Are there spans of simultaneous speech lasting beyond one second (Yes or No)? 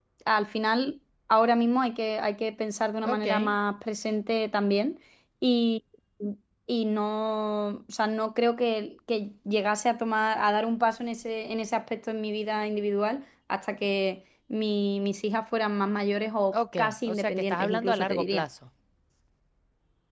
Yes